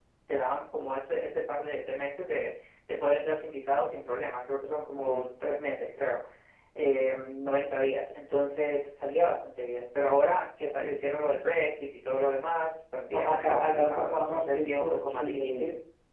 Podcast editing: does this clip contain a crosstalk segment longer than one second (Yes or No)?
Yes